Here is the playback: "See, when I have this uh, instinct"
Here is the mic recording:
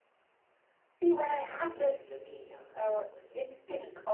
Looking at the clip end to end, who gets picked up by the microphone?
both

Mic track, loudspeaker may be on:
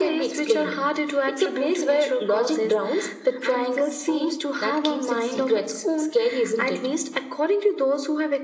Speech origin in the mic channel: echo only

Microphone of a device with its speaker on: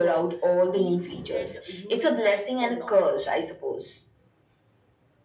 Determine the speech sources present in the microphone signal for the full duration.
both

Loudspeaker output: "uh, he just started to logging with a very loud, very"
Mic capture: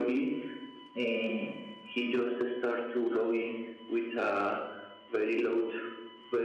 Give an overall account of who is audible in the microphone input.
echo only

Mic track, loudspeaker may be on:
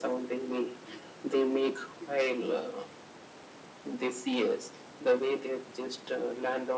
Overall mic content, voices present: echo only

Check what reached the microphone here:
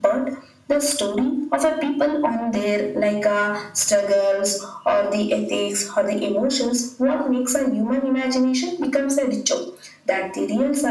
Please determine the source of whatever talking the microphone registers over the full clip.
echo only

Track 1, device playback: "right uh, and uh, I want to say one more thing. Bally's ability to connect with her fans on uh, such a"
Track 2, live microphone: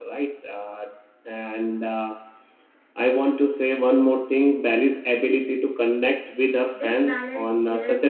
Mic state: both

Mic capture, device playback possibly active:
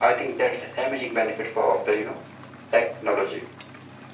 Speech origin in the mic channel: echo only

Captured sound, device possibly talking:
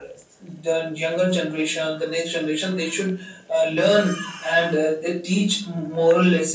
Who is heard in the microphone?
echo only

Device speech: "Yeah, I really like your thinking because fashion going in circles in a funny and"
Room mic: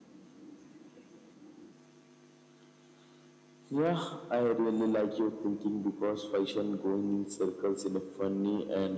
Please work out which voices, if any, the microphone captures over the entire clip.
echo only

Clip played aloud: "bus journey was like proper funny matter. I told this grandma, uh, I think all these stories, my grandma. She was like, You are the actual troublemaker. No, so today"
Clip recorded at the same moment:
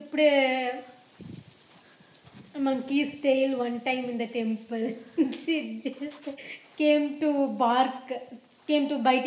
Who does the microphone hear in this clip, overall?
user only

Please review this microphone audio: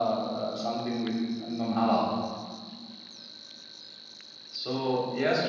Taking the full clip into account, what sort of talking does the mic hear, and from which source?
echo only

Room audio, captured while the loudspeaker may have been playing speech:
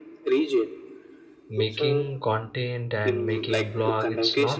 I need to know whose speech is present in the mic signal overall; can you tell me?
both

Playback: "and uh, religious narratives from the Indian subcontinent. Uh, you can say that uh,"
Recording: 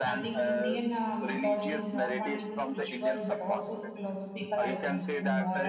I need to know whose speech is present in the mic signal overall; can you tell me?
both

